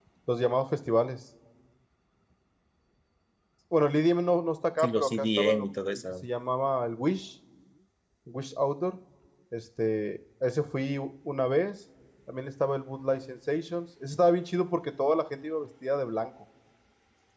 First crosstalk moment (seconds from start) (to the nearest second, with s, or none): 5 s